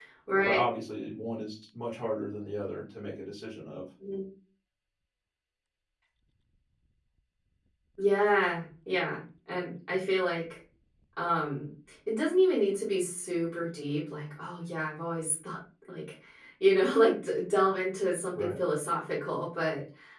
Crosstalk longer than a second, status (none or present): none